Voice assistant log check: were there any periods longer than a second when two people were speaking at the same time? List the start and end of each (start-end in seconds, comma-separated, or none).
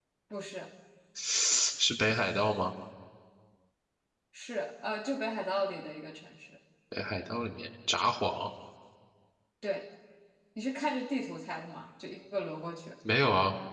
none